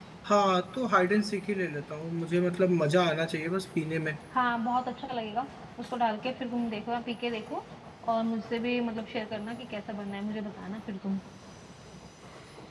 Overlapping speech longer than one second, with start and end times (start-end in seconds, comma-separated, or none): none